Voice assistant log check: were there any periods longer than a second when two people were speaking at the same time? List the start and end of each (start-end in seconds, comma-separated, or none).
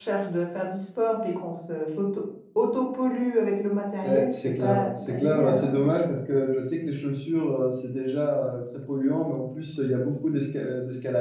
4.0-5.9